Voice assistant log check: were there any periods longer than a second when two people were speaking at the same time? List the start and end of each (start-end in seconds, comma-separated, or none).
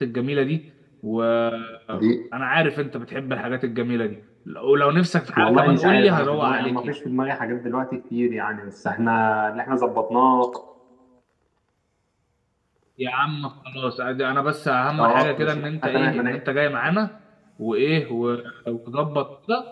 5.4-7.0, 15.0-16.4